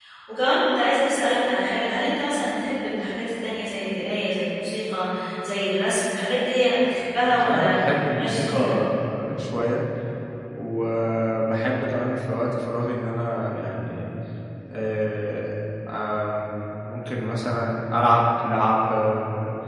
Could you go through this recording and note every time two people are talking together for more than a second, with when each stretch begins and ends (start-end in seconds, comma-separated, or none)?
7.3-8.7